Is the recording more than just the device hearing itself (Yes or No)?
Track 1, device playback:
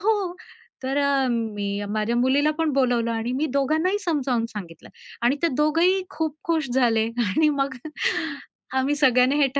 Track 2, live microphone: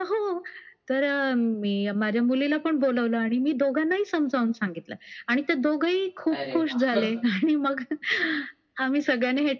Yes